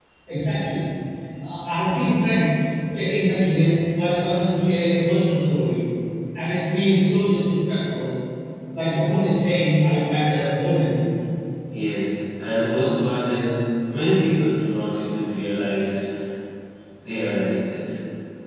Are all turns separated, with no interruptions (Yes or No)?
Yes